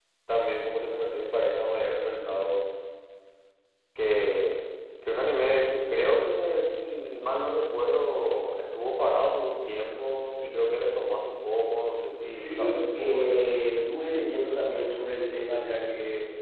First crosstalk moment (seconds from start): 12.2 s

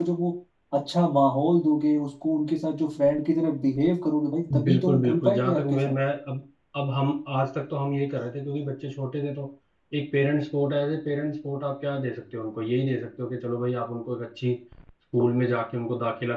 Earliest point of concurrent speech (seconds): 4.4 s

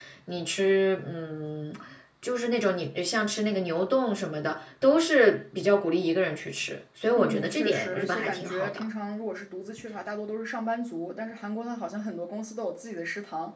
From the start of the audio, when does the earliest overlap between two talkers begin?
7.2 s

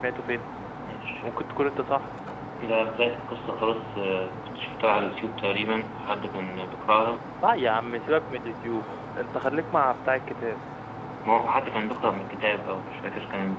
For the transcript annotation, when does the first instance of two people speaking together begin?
none

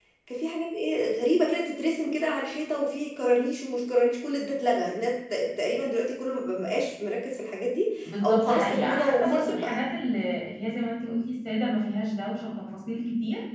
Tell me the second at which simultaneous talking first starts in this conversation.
8.2 s

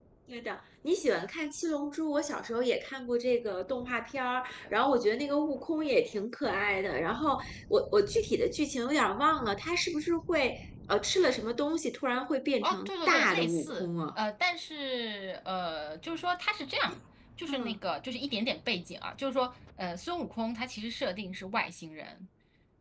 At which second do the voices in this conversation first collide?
12.6 s

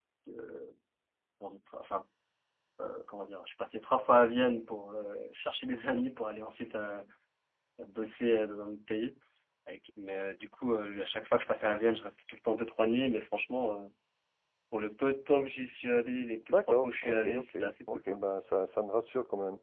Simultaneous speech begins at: 16.5 s

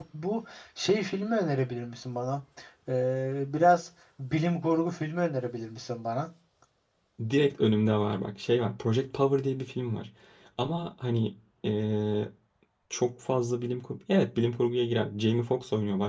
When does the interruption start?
none

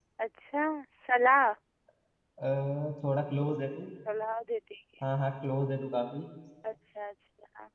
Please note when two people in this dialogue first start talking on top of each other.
none

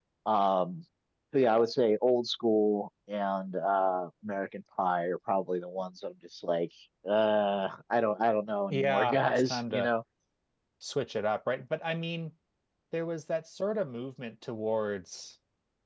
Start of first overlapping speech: 8.7 s

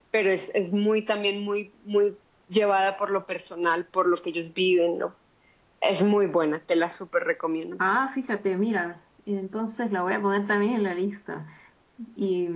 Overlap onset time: none

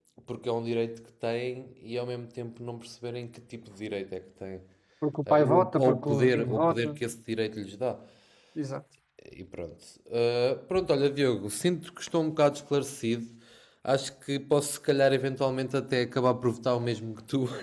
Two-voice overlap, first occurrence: 5.2 s

